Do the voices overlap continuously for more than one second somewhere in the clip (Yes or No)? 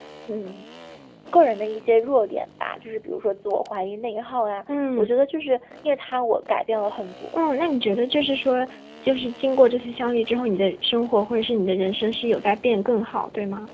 No